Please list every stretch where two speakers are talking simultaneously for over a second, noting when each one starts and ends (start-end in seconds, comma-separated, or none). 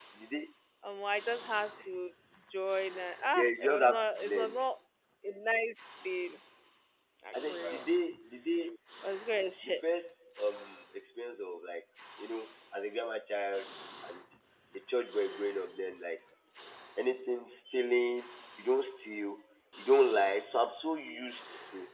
3.4-4.6